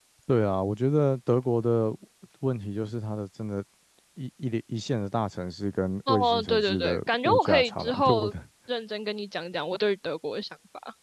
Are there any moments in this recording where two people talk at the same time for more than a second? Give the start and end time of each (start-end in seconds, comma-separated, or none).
6.1-8.3